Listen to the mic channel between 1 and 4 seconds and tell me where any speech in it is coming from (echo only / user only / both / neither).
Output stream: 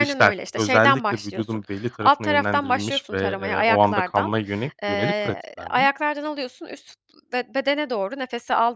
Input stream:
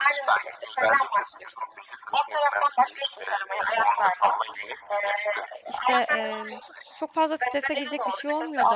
echo only